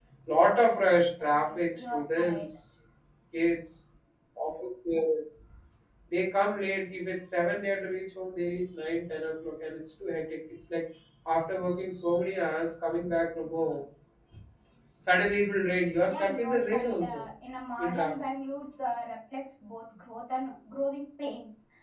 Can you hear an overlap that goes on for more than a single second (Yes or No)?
Yes